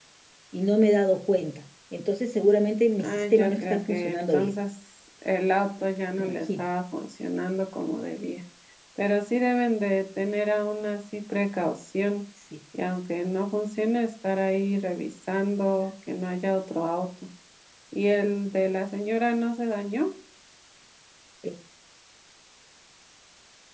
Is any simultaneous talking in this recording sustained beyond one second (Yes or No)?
Yes